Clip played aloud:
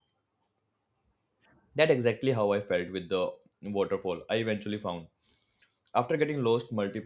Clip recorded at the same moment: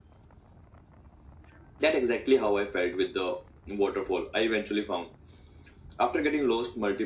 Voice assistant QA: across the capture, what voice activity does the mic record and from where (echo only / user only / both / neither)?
echo only